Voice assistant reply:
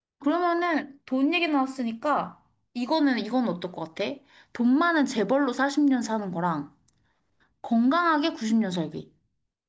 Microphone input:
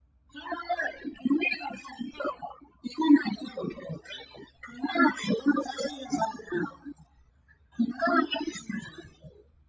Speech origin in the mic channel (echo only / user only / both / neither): echo only